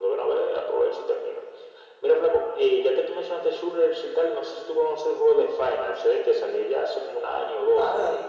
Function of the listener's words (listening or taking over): taking over